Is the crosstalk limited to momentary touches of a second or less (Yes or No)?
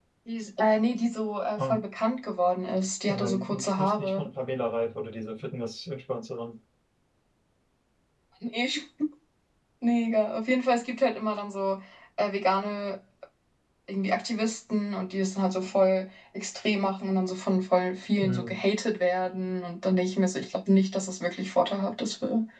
No